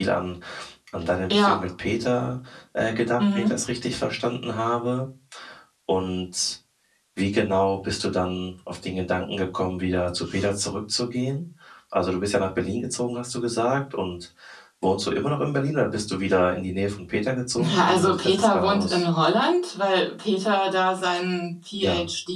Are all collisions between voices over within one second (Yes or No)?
No